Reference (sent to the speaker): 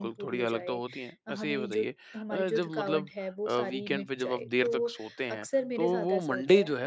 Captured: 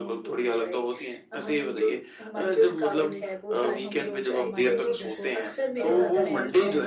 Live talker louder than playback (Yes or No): No